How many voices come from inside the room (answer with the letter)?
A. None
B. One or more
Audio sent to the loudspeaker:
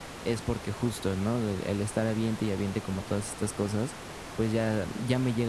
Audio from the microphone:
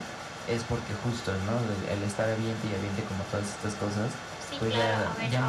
B